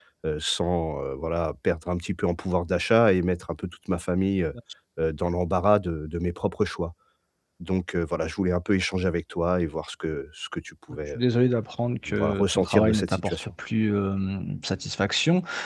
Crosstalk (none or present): present